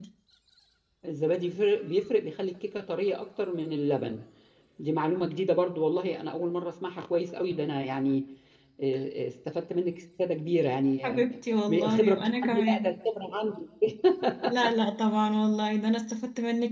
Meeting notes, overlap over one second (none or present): present